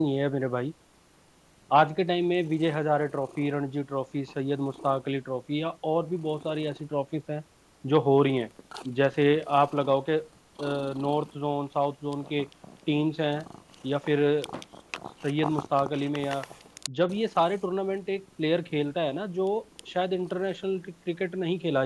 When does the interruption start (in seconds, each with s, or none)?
none